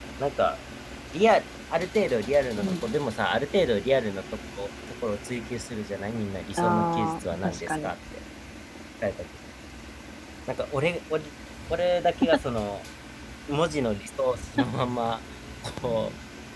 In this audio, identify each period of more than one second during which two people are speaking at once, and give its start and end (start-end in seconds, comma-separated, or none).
6.6-7.9